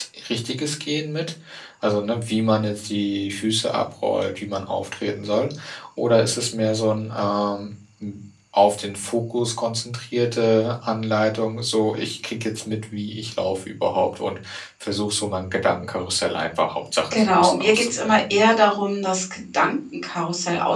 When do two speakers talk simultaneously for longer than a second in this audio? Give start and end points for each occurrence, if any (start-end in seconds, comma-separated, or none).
17.1-18.4